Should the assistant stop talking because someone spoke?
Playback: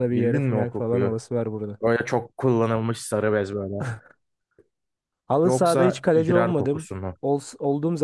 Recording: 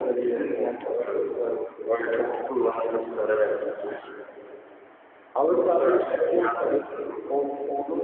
No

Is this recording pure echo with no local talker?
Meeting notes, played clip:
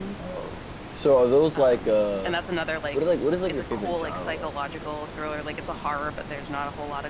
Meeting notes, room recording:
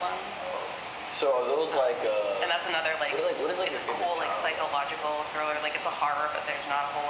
Yes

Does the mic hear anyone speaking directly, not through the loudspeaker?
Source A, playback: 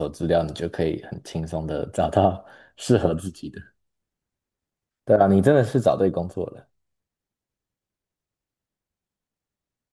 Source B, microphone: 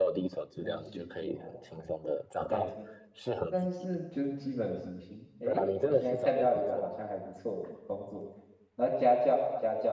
Yes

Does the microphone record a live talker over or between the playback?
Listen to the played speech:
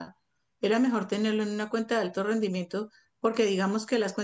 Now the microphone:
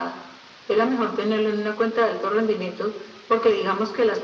No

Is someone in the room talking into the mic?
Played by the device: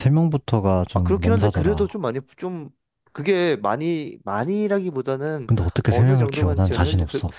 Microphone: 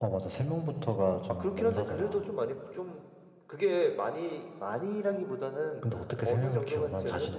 No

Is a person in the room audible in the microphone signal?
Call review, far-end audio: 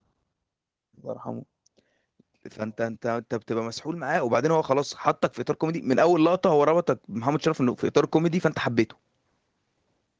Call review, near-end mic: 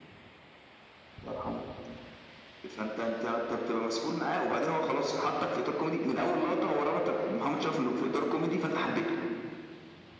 No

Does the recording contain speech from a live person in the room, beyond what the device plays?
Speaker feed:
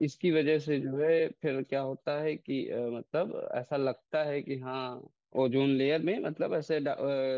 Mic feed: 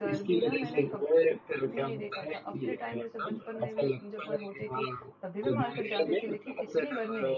Yes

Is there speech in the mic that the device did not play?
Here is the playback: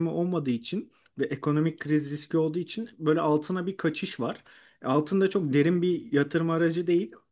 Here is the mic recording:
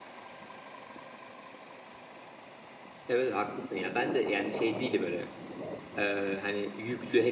Yes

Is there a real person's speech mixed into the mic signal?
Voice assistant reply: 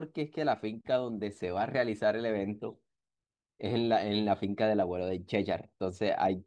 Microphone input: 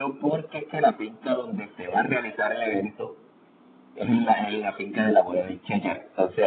No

